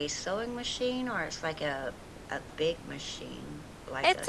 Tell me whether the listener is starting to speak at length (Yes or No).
Yes